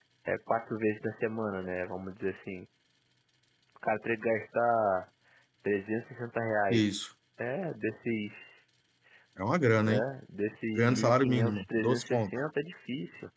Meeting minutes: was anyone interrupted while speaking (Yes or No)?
Yes